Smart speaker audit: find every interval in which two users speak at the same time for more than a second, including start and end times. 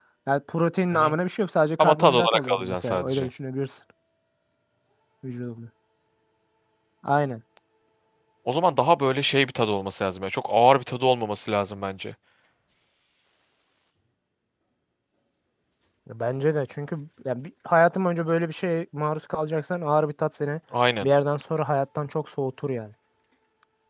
1.8-3.3

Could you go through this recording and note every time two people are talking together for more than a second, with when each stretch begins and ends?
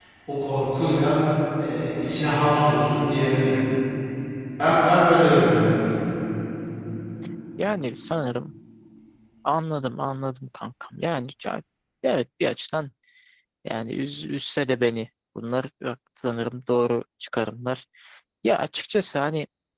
none

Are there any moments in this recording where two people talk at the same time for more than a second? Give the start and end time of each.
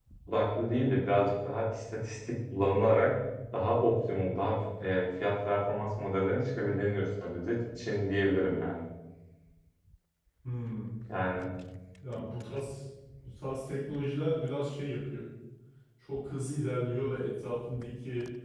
none

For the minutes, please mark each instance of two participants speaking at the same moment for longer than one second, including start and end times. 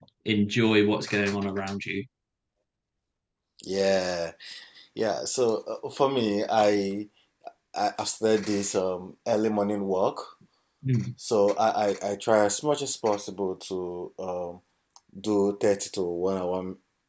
none

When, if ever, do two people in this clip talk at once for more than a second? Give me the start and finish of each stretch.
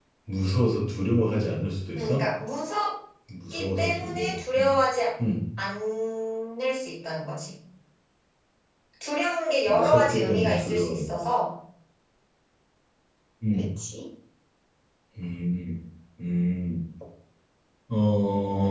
3.5-4.7, 9.7-11.1

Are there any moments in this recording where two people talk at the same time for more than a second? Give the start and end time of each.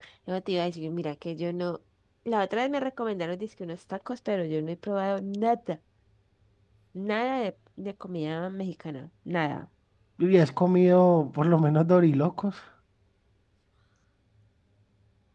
none

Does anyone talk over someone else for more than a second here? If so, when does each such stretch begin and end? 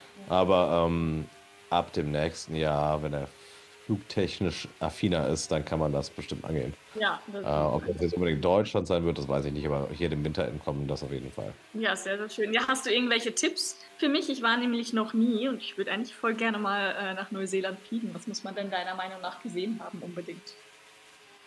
none

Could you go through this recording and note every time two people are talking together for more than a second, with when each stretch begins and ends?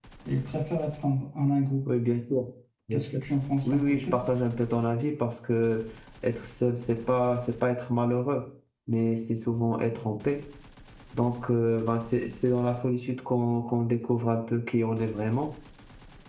none

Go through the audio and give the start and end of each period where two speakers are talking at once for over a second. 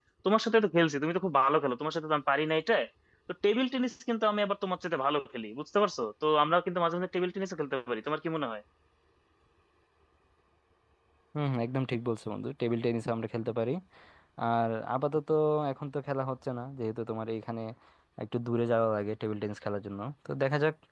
none

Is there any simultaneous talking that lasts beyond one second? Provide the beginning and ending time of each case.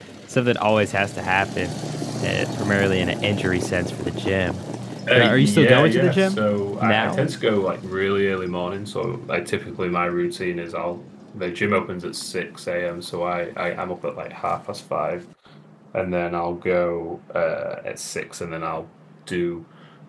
5.1-6.4

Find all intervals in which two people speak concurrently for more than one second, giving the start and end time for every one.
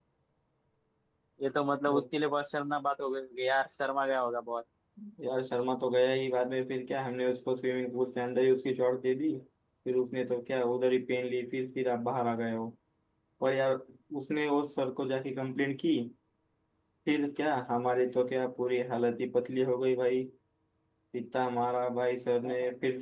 none

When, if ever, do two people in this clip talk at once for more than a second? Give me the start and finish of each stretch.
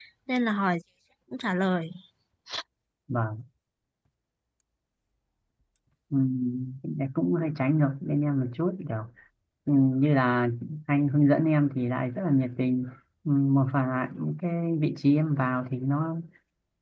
none

